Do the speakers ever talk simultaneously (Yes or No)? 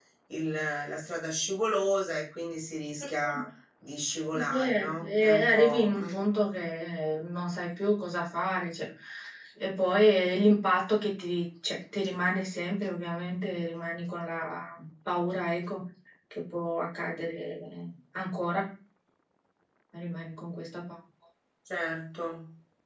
Yes